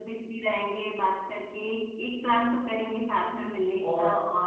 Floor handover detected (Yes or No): No